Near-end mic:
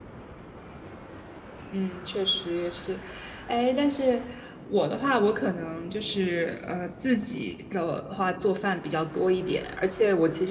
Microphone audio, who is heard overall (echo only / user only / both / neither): echo only